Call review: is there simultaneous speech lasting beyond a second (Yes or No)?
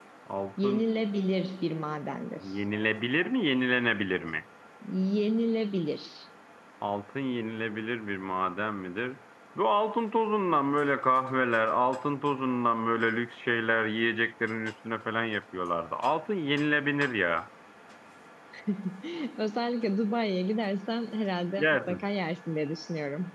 No